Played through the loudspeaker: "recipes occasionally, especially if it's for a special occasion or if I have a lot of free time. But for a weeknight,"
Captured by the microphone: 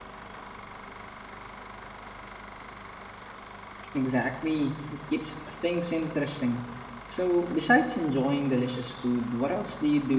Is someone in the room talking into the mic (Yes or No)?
Yes